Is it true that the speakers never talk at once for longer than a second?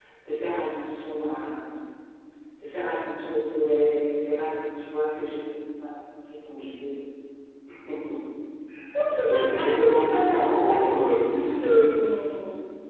No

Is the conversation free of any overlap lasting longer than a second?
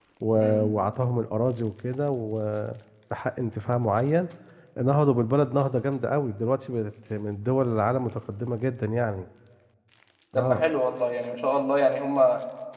Yes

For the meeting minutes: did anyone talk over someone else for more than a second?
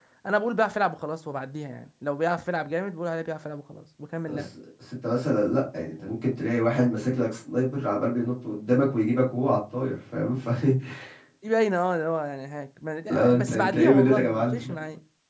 Yes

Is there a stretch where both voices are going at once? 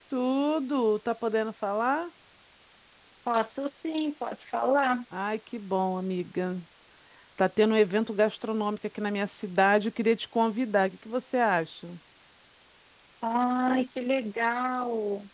No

